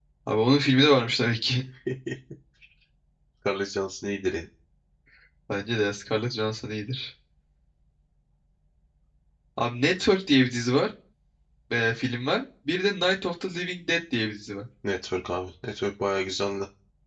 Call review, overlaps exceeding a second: none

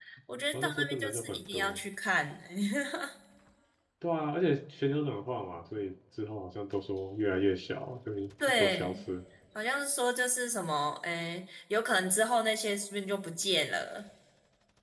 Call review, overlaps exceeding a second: present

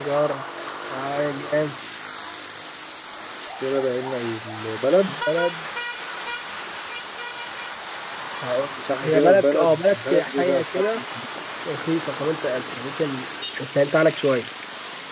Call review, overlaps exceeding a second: present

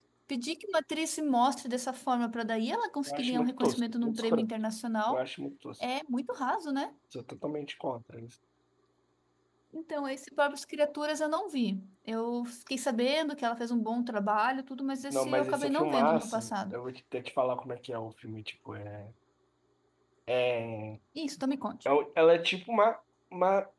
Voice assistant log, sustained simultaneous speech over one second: present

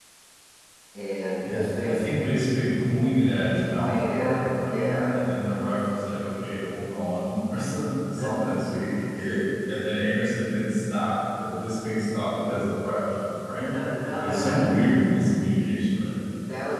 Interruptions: present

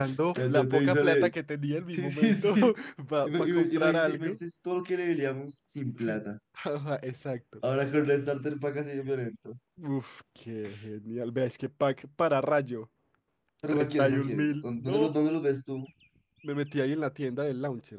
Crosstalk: present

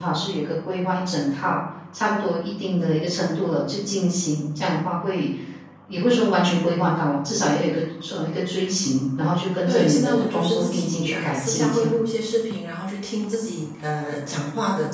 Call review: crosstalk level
present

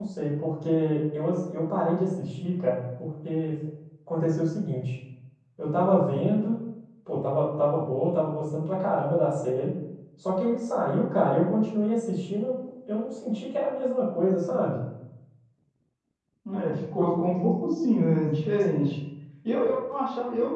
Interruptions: none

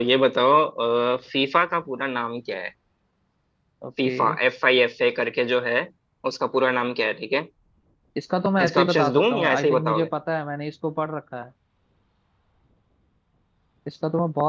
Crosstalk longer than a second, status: present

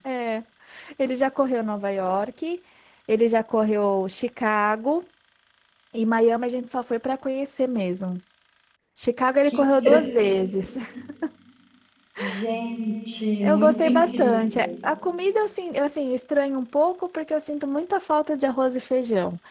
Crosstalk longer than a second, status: present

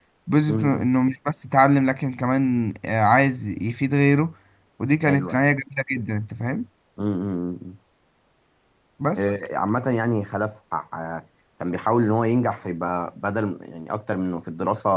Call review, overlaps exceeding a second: none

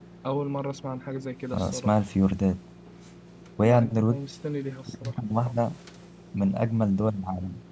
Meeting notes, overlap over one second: none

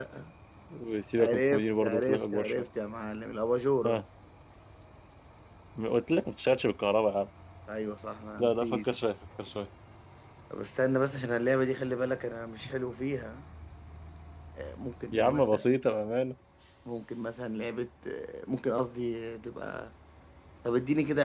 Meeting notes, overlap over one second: present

